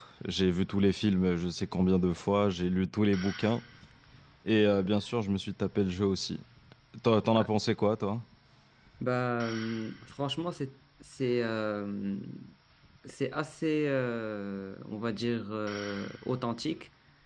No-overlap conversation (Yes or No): Yes